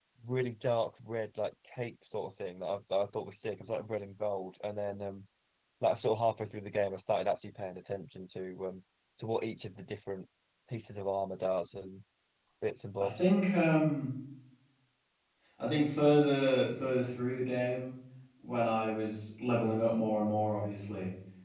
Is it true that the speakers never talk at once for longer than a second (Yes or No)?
Yes